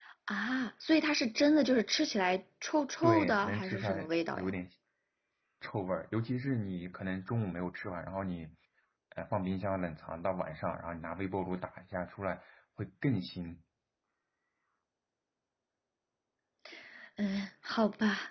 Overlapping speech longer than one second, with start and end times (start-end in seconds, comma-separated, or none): 3.0-4.5